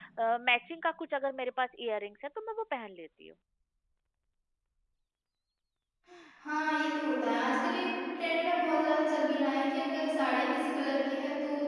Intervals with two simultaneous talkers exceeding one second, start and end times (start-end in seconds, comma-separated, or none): none